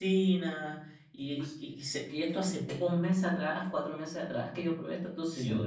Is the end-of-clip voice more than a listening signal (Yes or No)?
Yes